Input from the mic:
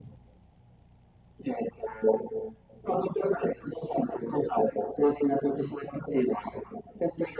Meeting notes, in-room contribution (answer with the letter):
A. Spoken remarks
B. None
B